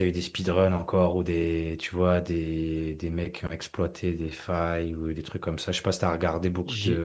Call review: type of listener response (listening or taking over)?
taking over